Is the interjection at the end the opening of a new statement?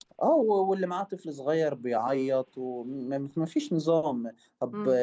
No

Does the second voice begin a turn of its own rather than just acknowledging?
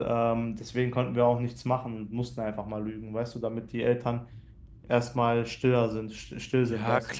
Yes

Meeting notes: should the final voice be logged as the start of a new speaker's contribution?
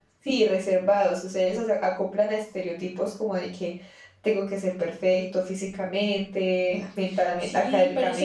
Yes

